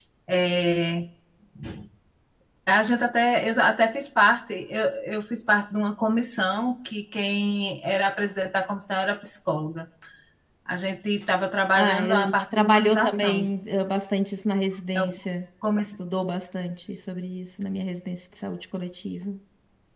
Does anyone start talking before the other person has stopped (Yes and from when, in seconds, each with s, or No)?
Yes, from 11.8 s